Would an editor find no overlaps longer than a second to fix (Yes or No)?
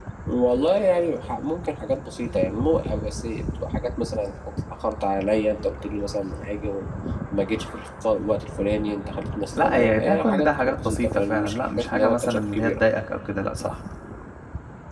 No